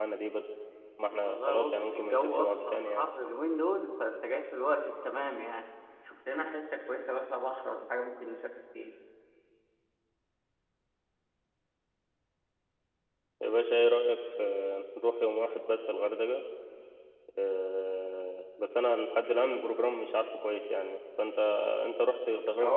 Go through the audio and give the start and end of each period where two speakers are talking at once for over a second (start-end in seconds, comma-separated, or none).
1.2-3.0